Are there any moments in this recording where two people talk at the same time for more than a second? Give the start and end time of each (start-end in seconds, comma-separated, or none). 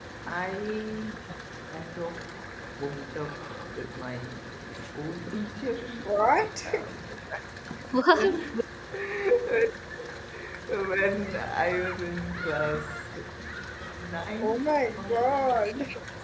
14.4-15.7